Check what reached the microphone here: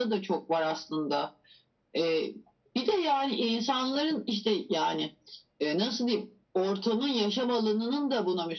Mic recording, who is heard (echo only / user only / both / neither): echo only